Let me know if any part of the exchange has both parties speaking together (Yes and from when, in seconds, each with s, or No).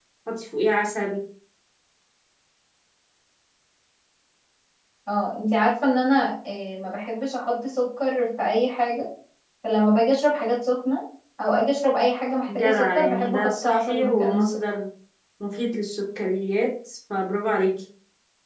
Yes, from 12.5 s